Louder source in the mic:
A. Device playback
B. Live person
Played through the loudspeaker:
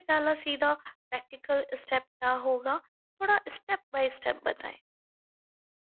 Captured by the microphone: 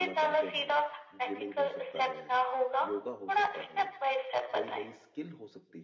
A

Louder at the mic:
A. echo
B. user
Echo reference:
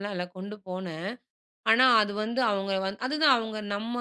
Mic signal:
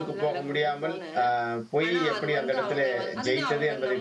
B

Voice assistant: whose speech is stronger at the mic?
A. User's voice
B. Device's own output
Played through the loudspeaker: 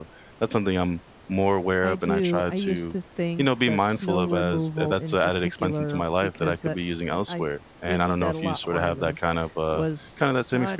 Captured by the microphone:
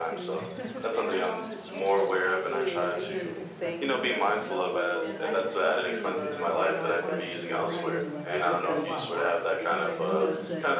B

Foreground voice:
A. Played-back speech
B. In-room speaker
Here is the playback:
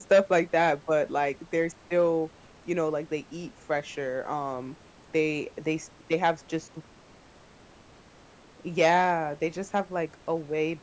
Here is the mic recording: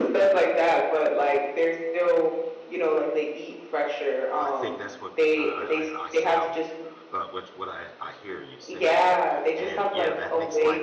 A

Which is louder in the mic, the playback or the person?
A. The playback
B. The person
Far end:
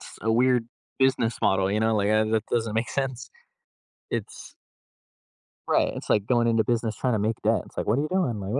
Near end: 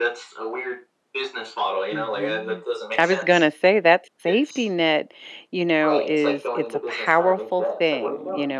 B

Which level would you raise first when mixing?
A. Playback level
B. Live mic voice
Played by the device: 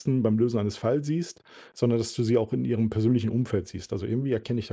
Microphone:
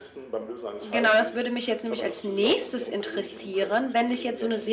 A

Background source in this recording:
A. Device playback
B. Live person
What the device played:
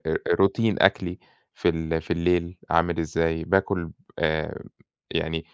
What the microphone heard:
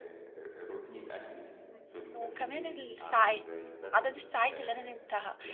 A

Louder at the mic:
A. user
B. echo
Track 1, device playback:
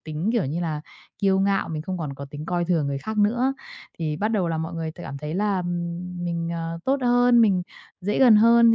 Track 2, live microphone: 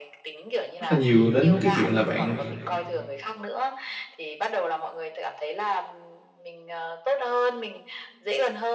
A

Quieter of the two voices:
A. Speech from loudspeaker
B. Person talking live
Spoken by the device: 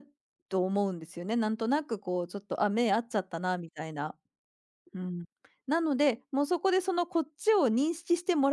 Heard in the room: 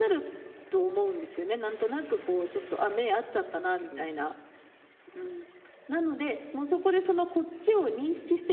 B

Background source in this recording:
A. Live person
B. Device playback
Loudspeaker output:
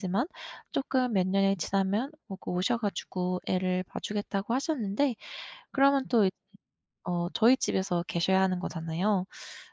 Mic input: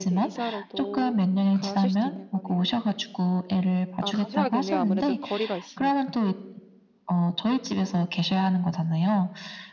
A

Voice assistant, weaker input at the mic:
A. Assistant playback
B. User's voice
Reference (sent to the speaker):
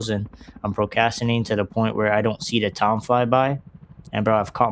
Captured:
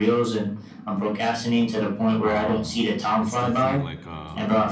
B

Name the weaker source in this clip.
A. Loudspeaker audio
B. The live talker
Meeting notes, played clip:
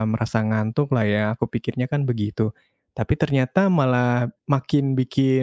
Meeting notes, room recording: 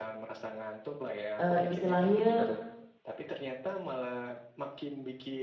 A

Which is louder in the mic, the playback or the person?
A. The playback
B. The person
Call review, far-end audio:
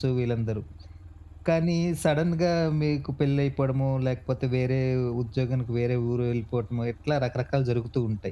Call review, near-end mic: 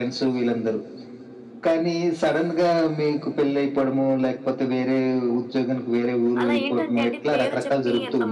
A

